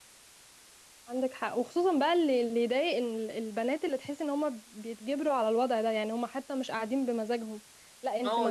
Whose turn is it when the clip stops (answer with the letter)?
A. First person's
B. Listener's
B